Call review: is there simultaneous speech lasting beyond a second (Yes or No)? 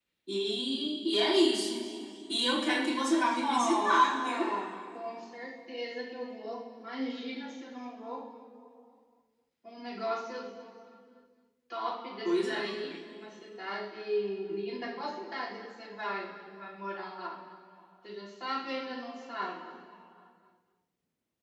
Yes